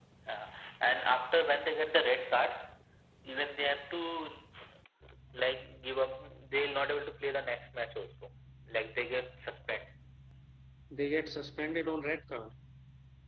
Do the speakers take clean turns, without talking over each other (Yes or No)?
Yes